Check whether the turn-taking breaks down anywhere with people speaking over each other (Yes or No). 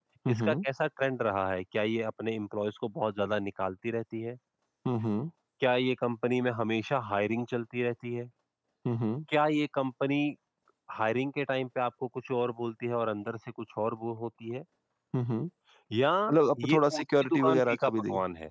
Yes